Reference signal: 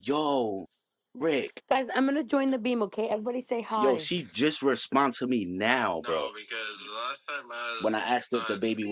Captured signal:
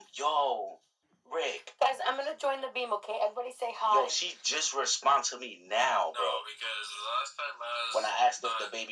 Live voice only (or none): none